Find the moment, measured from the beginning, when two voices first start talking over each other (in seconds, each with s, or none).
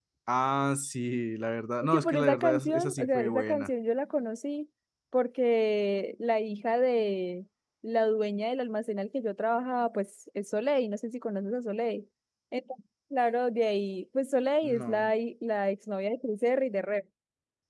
1.8 s